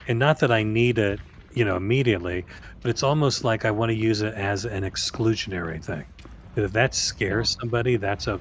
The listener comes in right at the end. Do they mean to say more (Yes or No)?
No